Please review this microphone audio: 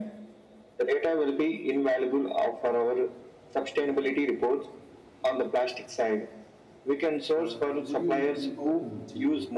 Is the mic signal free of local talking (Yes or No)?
No